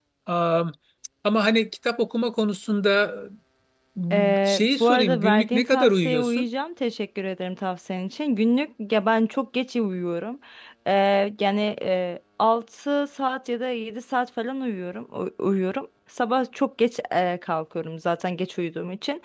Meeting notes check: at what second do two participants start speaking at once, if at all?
4.1 s

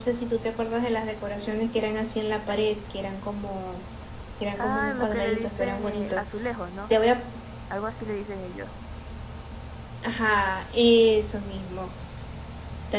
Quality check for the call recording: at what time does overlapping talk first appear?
4.6 s

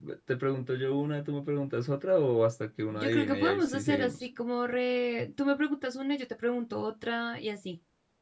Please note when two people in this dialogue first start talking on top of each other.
2.9 s

